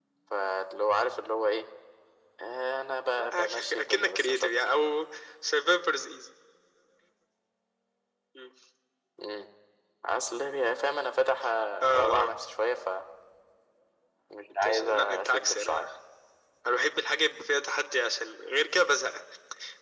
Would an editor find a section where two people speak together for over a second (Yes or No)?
Yes